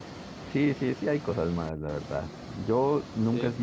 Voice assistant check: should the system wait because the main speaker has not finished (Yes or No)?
Yes